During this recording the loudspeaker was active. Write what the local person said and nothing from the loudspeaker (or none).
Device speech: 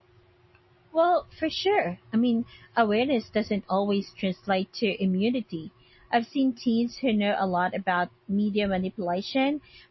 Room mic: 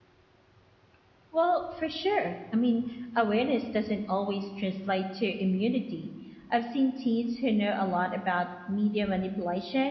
none